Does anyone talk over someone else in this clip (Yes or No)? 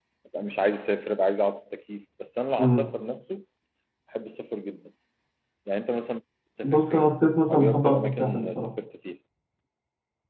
Yes